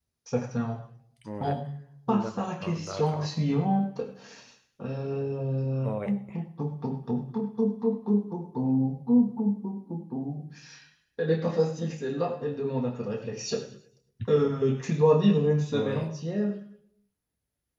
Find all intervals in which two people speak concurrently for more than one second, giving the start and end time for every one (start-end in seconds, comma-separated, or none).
2.1-3.4